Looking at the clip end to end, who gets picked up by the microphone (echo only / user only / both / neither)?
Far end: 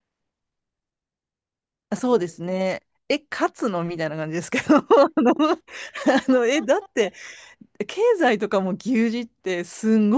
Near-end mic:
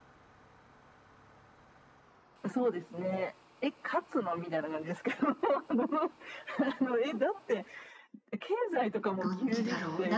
both